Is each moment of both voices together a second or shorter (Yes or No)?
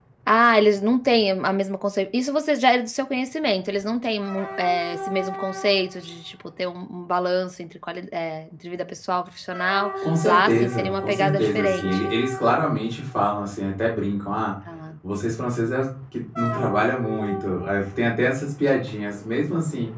No